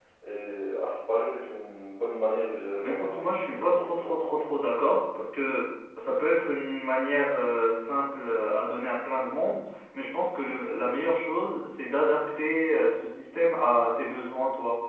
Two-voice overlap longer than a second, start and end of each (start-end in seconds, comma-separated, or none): 2.8-4.4